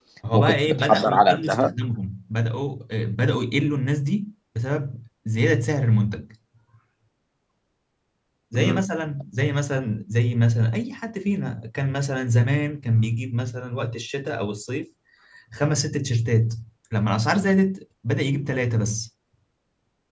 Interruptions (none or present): present